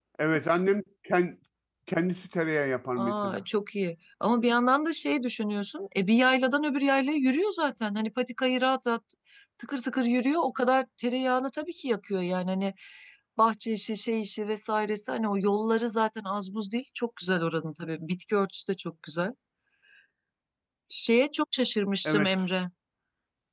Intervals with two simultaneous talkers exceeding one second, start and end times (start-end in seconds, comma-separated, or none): none